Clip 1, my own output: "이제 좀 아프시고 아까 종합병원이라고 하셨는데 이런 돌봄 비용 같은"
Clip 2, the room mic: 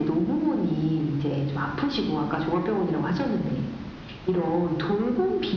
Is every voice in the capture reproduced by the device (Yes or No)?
Yes